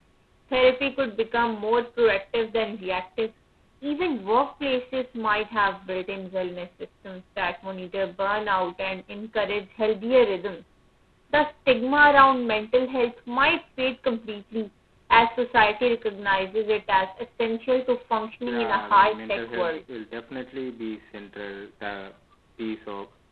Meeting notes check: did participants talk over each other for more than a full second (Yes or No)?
Yes